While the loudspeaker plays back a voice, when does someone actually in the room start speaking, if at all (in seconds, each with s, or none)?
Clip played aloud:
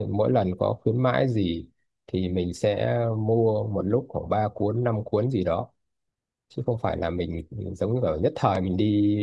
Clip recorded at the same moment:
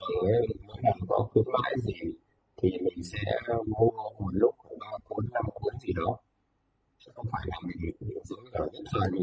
none